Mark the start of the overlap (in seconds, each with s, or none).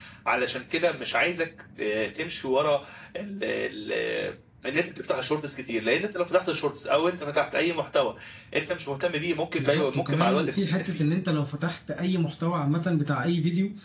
9.6 s